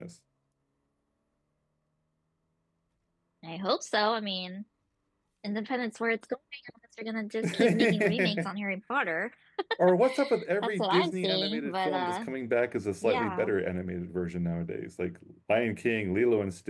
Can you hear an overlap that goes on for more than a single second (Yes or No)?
Yes